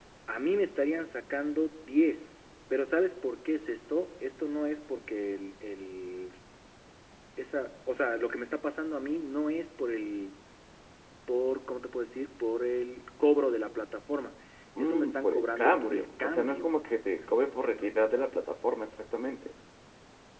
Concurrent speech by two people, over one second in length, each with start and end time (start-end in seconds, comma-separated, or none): 14.8-16.7